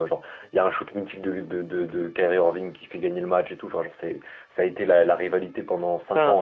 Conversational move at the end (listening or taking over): taking over